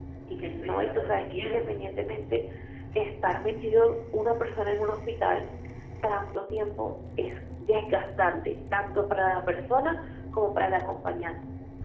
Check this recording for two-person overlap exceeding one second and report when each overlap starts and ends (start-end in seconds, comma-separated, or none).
0.6-1.8